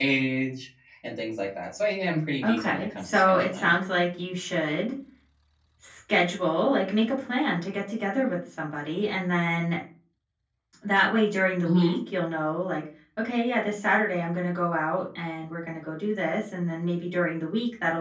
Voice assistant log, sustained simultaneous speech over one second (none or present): present